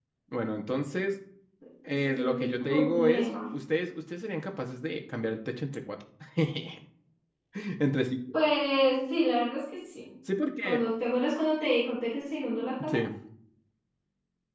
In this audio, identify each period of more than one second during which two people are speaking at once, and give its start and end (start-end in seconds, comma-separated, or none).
2.0-3.3